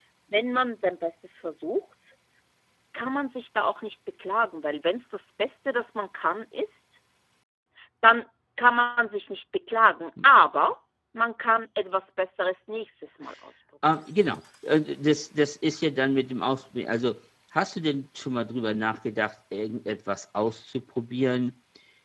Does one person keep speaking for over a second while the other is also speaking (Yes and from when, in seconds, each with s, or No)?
No